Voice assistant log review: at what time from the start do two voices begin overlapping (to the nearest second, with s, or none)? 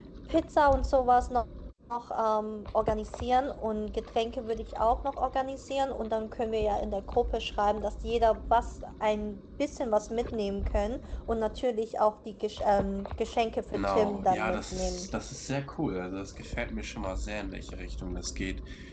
14 s